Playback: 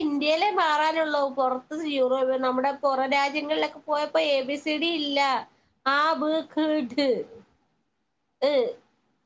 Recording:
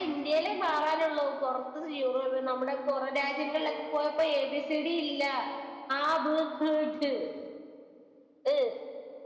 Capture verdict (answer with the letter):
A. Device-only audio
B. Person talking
A